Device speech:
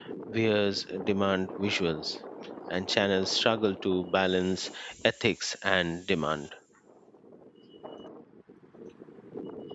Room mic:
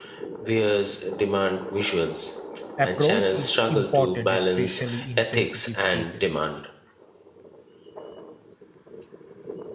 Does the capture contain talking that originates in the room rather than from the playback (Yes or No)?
Yes